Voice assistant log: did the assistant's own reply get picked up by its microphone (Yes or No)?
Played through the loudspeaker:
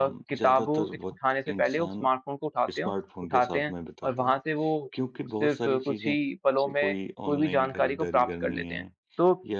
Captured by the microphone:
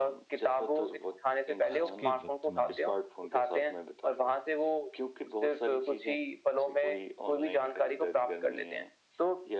Yes